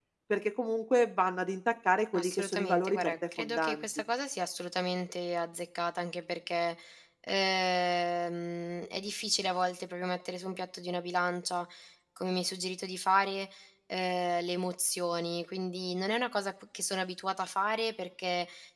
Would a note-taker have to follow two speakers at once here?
Yes, from 2.1 s

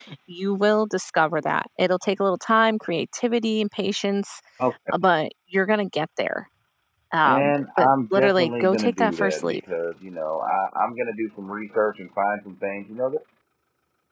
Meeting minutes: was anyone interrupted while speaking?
Yes, from 7.2 s

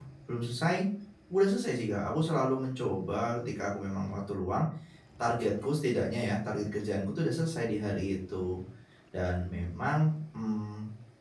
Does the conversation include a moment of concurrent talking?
No

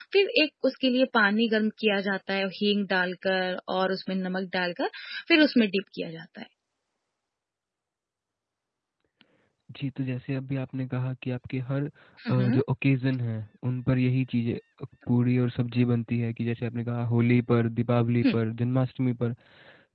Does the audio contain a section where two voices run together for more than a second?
No

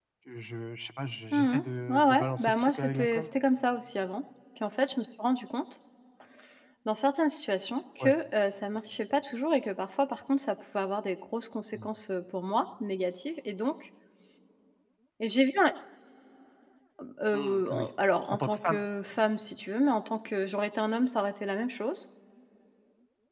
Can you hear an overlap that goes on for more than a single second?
Yes, from 1.3 s

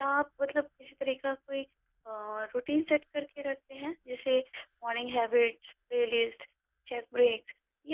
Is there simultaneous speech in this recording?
No

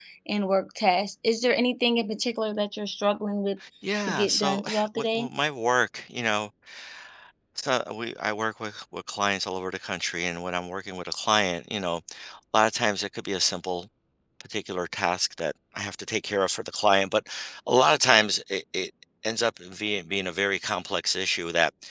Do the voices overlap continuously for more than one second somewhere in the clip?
Yes, from 4.0 s

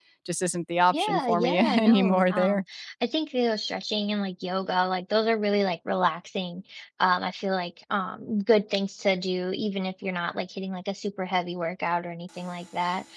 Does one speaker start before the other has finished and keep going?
Yes, from 0.9 s

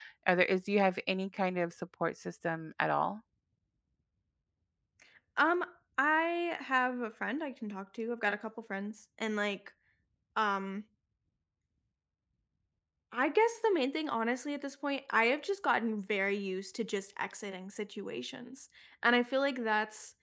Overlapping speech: No

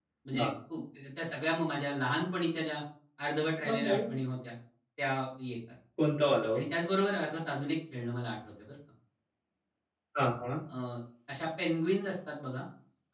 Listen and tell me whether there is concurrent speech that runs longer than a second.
No

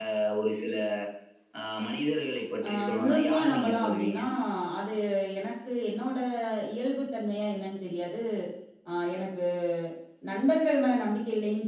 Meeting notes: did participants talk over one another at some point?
Yes, from 2.6 s

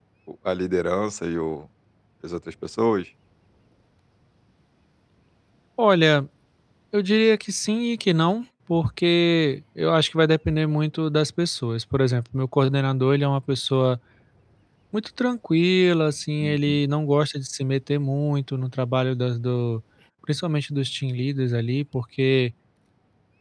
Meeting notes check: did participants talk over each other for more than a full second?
No

